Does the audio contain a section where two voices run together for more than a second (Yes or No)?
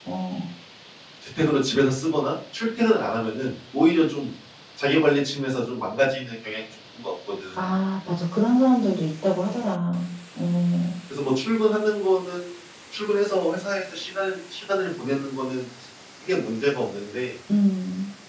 No